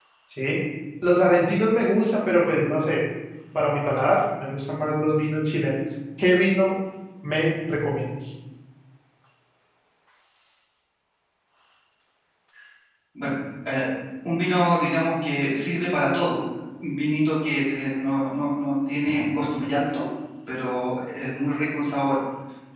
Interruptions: none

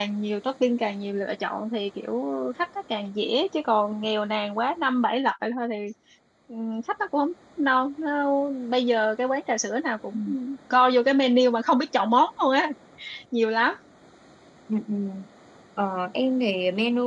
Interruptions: none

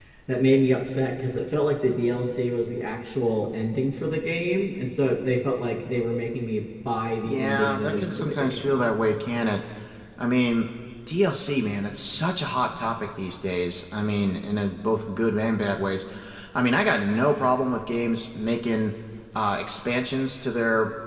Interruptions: present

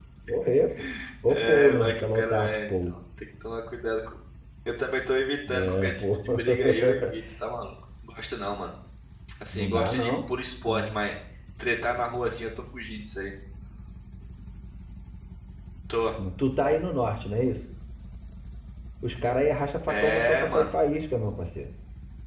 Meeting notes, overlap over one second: present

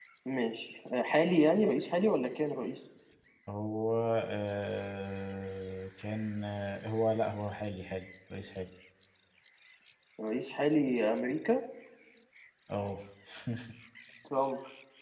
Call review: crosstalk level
none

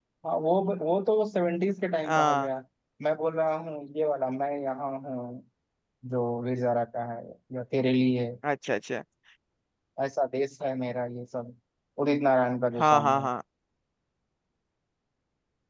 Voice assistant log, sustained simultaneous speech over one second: none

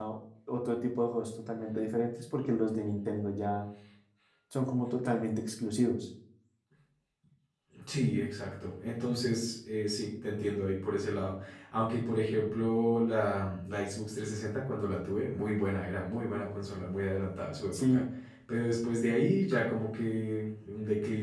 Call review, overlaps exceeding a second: none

